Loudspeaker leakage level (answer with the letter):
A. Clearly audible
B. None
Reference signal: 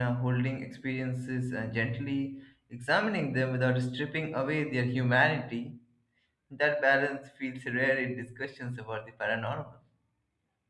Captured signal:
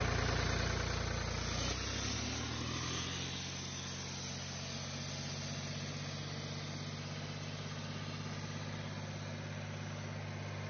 B